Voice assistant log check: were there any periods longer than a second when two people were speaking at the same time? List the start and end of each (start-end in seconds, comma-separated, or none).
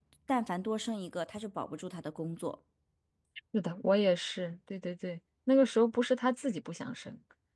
none